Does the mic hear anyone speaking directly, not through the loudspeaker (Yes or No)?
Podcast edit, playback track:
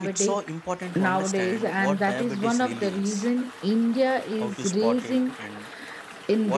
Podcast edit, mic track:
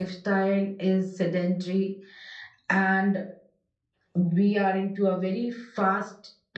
Yes